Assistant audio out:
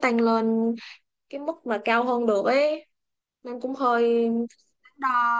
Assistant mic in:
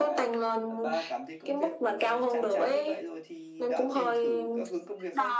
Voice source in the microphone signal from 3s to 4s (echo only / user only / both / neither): both